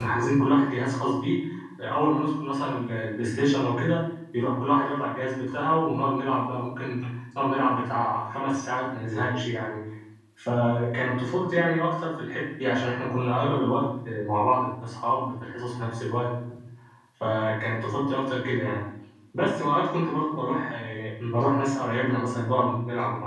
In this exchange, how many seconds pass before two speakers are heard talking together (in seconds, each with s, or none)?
none